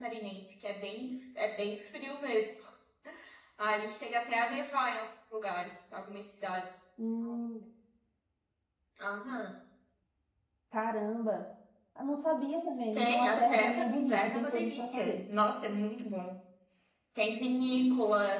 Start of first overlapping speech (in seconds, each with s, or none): 12.9 s